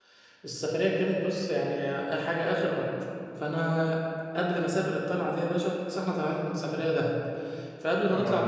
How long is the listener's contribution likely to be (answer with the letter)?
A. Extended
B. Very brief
B